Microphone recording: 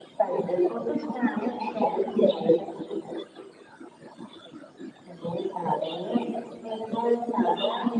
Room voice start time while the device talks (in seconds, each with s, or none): none